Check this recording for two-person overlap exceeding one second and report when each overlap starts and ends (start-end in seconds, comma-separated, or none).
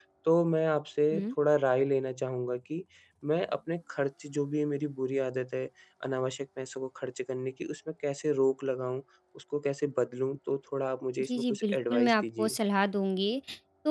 11.2-12.6